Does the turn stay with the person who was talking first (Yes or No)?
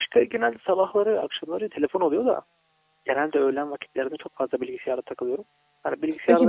Yes